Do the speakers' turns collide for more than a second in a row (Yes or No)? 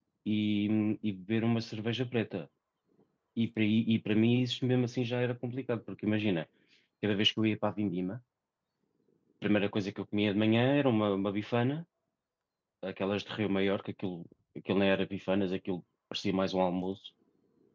No